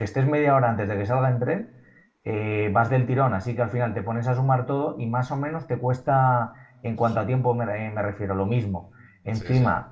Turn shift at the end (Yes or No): No